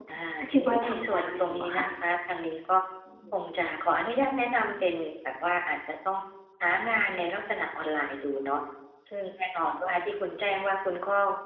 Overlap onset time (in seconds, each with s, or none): 0.6 s